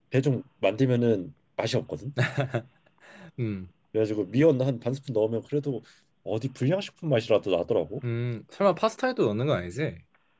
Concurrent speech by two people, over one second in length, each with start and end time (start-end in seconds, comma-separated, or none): none